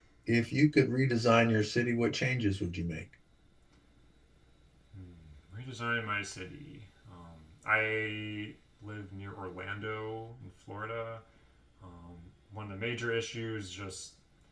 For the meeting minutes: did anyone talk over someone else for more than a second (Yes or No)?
No